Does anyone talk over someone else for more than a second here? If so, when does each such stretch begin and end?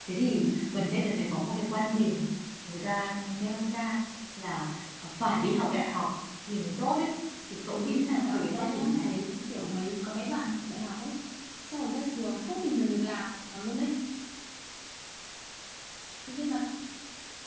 7.8-9.1

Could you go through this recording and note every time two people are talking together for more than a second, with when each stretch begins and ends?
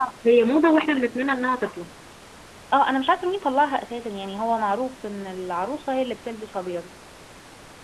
none

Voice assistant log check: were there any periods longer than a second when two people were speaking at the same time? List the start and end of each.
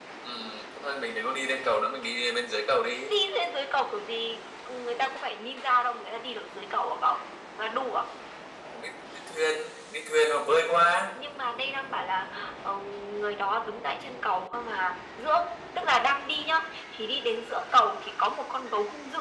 none

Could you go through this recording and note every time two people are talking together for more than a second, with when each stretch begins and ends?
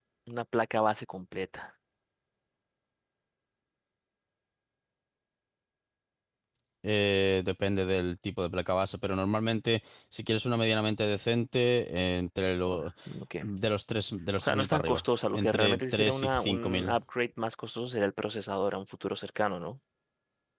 14.4-16.9

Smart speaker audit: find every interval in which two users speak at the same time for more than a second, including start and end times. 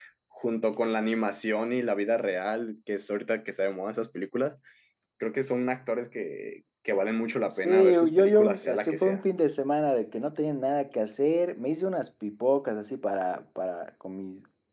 7.5-9.2

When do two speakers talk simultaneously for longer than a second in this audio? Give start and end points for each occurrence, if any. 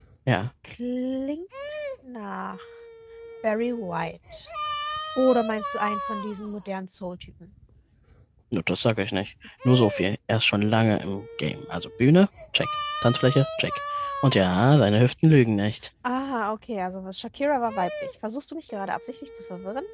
none

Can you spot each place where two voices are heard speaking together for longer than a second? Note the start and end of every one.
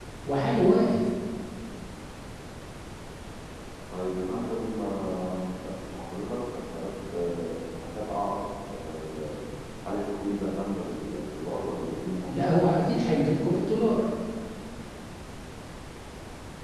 none

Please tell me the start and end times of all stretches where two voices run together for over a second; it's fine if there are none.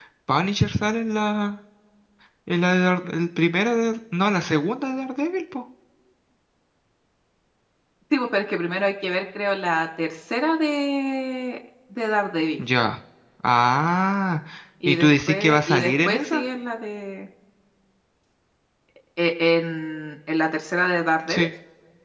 14.8-16.4

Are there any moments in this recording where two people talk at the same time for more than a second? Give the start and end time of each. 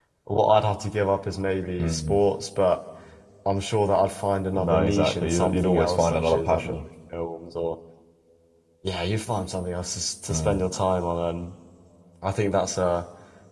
4.5-6.8

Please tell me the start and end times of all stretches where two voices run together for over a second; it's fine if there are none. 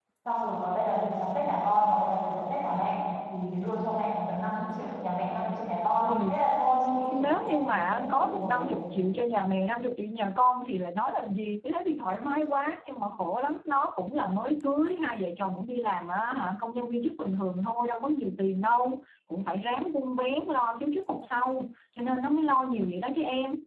6.8-8.8

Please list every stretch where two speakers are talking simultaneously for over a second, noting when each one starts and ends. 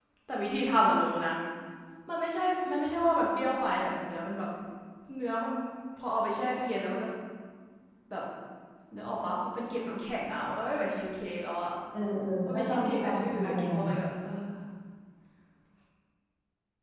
12.5-14.0

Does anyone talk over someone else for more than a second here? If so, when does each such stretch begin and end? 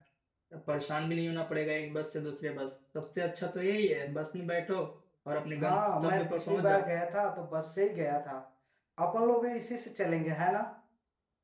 5.6-6.8

